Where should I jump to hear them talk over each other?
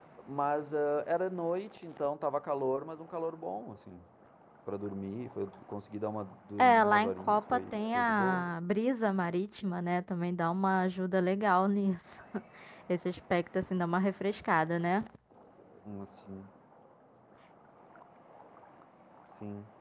6.6 s

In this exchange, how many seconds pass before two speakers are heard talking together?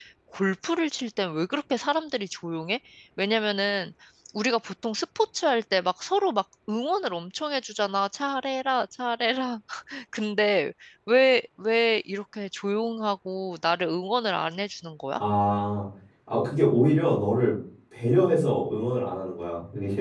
none

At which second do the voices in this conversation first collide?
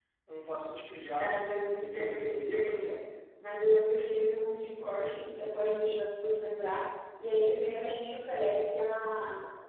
1.2 s

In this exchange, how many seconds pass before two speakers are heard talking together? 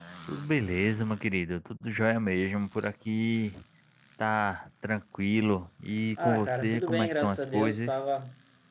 6.2 s

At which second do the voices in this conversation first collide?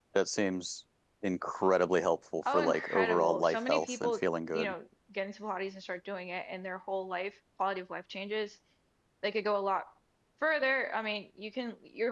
2.4 s

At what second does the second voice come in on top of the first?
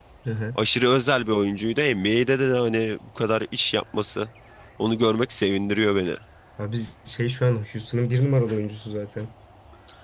none

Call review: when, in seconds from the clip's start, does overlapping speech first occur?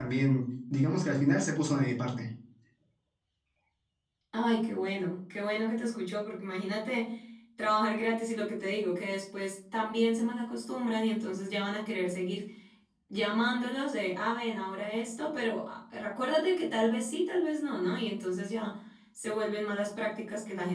none

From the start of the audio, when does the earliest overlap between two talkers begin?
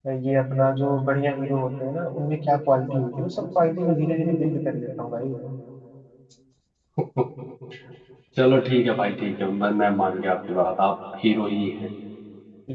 none

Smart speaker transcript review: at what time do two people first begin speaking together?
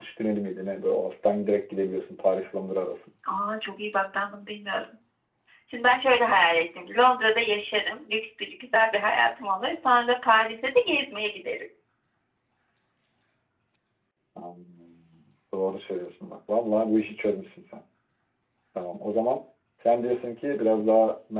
none

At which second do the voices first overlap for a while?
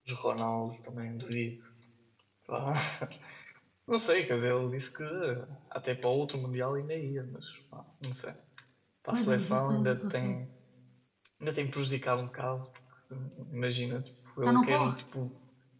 9.1 s

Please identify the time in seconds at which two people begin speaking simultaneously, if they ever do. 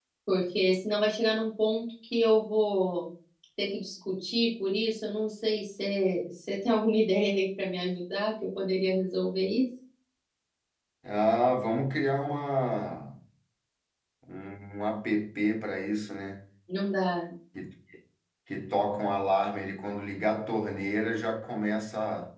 none

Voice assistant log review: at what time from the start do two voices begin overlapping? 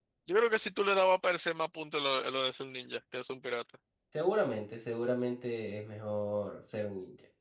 none

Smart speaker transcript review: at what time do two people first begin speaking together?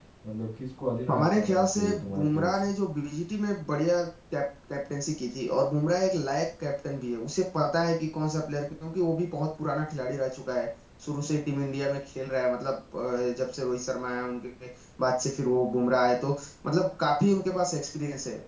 1.1 s

